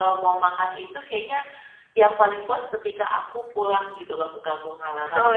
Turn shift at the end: Yes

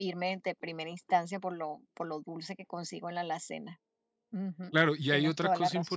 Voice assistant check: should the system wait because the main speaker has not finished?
No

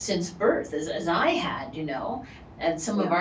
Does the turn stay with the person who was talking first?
Yes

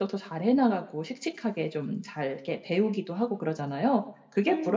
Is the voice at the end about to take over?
Yes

